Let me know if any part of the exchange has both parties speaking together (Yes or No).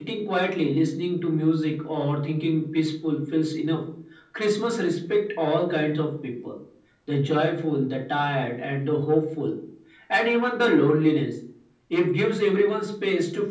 No